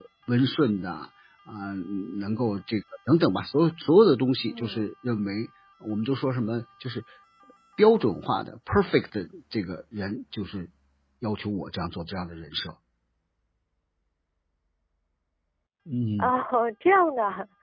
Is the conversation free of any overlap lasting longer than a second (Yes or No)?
Yes